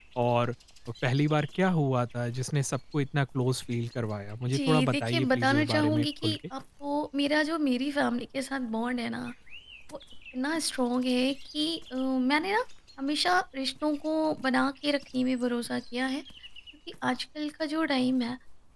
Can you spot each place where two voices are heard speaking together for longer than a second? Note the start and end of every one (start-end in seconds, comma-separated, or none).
4.5-6.4